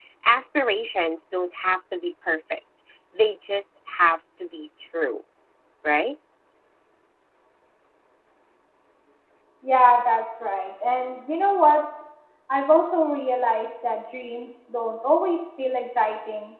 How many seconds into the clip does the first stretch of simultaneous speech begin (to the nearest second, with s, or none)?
none